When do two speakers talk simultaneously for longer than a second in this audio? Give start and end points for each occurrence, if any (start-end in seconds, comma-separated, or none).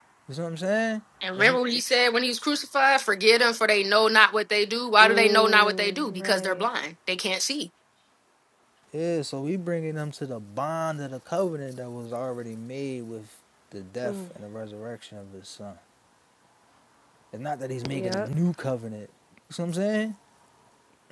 5.0-6.6